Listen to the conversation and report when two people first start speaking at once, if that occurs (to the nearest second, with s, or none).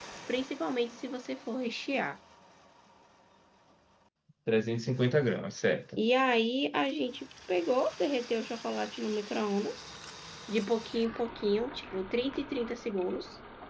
none